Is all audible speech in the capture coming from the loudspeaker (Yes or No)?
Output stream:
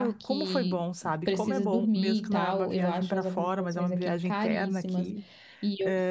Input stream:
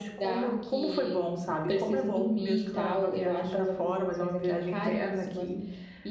Yes